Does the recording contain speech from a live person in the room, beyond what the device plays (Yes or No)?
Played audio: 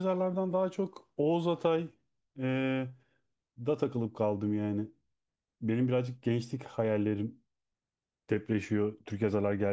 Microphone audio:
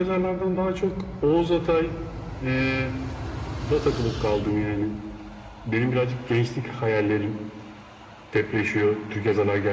No